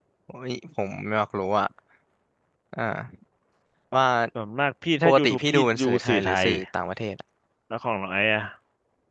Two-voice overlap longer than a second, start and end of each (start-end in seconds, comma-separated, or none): 5.0-6.5